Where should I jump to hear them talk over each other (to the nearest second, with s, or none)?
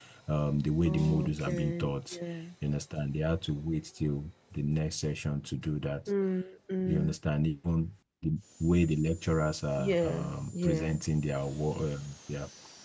1 s